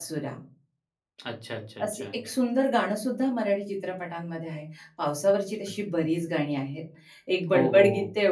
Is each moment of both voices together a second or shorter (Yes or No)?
Yes